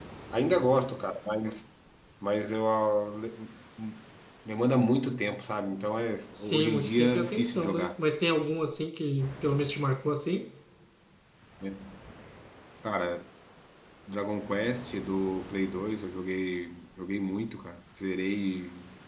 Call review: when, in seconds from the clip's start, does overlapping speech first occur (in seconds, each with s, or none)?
6.3 s